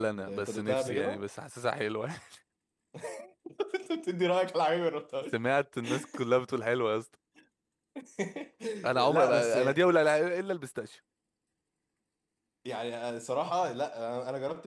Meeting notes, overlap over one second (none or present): present